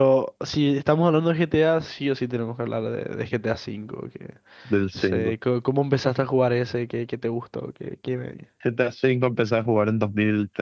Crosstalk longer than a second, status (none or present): none